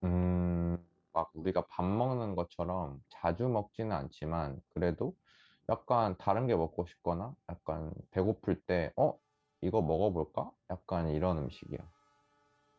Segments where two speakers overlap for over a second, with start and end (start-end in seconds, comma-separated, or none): none